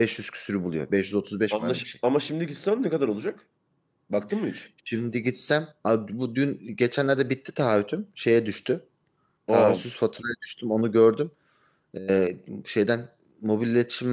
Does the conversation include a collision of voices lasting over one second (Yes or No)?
No